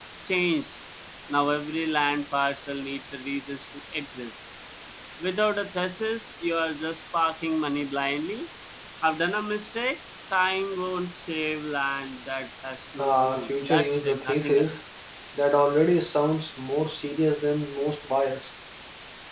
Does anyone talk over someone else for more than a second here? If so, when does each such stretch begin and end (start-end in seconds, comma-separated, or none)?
13.0-14.7